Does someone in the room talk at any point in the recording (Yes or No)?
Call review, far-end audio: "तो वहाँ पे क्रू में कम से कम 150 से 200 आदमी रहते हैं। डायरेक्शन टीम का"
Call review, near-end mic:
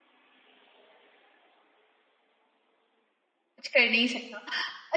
Yes